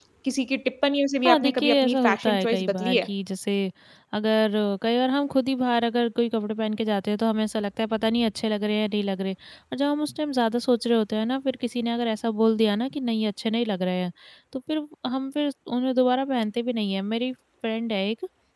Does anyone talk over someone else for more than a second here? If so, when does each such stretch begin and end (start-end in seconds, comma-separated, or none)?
1.2-3.1